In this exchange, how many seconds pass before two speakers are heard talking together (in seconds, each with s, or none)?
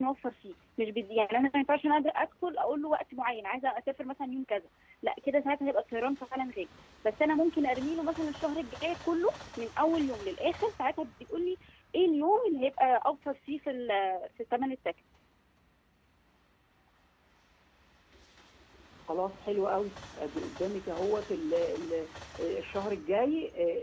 none